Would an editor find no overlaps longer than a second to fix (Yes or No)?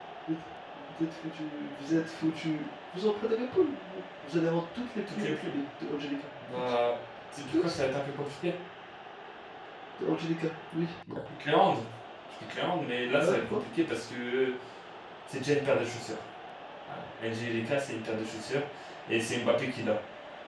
Yes